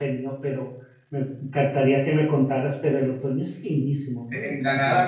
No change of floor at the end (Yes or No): No